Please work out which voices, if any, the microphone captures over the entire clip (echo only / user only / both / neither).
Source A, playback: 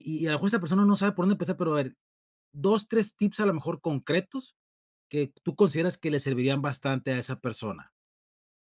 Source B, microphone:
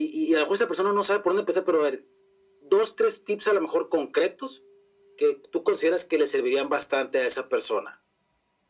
echo only